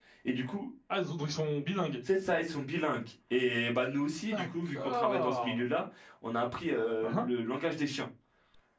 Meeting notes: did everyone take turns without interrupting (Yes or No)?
No